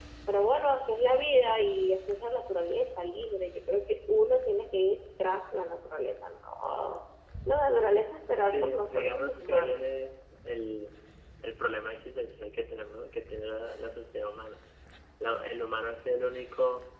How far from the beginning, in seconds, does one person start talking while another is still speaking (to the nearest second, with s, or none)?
8 s